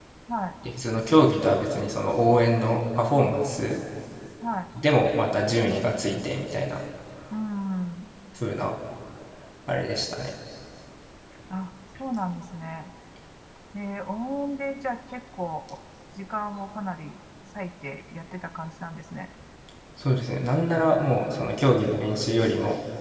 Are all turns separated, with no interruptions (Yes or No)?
Yes